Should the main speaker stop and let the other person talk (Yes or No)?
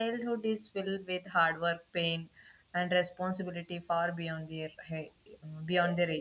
No